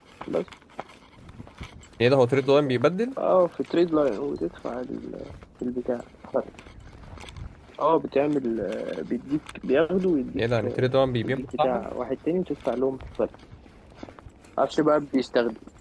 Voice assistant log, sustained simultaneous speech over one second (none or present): present